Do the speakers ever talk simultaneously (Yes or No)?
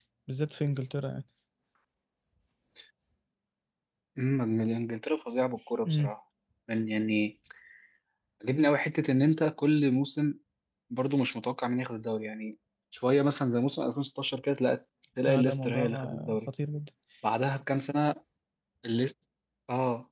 Yes